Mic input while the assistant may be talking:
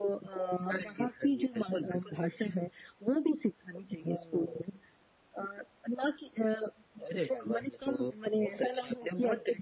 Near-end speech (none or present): none